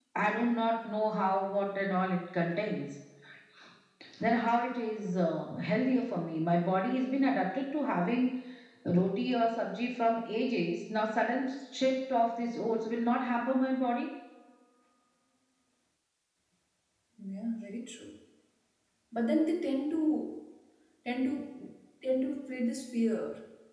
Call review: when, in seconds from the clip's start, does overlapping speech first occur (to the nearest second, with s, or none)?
none